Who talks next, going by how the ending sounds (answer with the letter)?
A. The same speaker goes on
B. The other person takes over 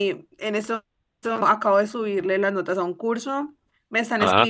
A